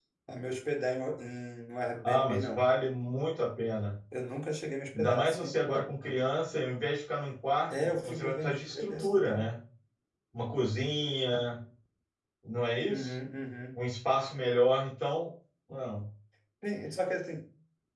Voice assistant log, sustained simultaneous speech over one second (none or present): present